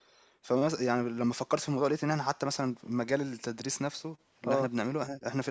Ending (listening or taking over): listening